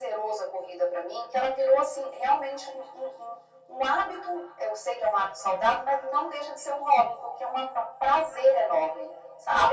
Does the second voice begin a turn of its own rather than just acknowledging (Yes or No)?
Yes